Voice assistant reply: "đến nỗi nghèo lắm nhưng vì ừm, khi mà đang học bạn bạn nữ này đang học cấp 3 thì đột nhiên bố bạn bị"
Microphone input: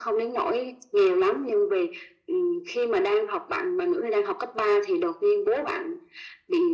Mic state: echo only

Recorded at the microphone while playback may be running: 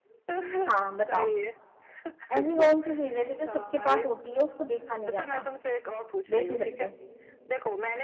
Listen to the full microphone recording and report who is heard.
both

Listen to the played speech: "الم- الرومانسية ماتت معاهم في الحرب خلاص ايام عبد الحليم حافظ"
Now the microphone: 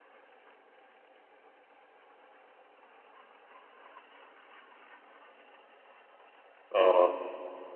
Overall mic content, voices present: user only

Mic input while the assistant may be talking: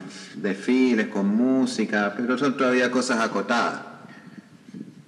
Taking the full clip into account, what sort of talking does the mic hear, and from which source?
echo only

